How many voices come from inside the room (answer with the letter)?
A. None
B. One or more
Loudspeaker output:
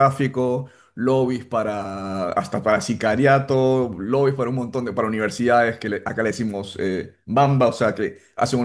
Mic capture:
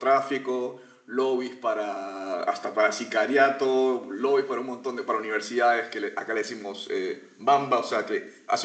A